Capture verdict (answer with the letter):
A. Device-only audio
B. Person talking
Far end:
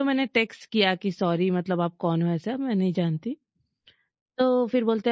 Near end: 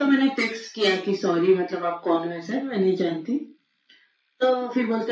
A